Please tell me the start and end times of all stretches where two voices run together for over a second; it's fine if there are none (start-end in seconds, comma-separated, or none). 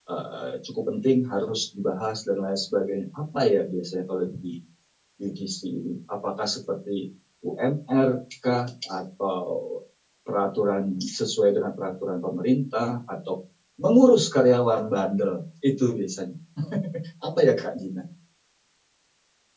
none